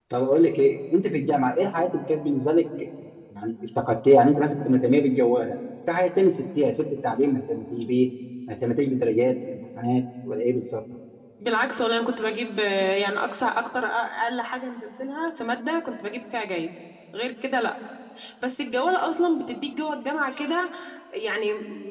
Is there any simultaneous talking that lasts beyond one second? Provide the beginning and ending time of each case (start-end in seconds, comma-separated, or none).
none